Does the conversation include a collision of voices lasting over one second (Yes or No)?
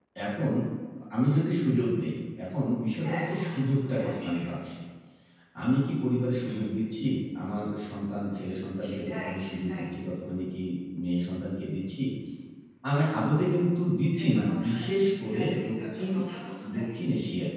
Yes